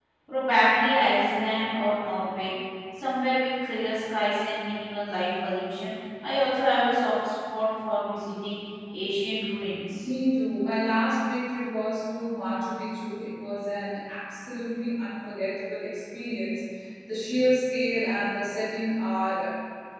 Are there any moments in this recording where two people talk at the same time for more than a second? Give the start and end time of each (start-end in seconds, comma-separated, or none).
none